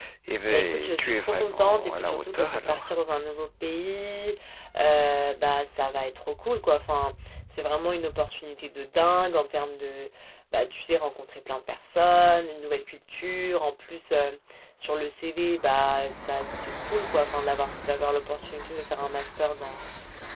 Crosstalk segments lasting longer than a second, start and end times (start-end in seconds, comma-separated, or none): 0.5-3.0